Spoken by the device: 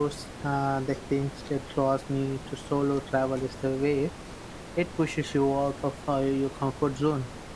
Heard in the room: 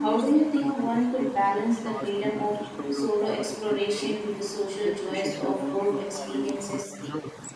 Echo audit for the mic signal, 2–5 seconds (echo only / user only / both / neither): both